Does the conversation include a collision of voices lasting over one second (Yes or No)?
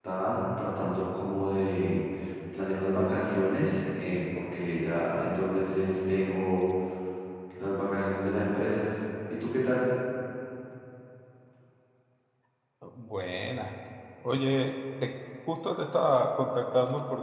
No